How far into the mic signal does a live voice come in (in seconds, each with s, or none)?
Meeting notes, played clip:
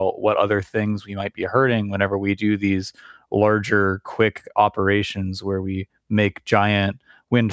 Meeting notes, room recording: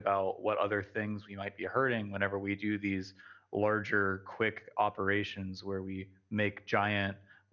none